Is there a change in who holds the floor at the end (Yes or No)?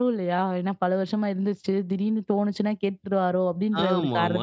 Yes